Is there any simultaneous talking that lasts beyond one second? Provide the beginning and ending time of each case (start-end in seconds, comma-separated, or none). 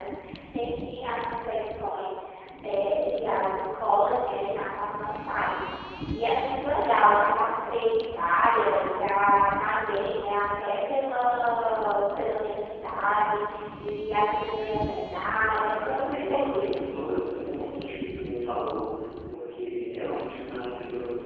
15.3-16.7